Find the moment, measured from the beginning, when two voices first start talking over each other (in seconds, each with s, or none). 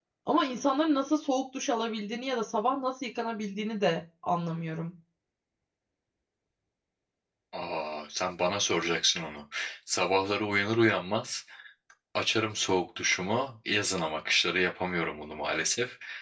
none